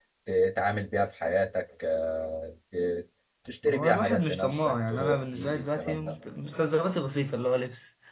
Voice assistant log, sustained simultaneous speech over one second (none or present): present